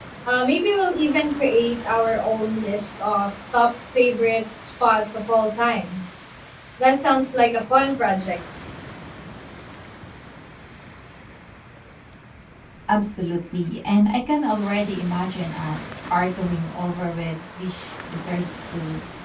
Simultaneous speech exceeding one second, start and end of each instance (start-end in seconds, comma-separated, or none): none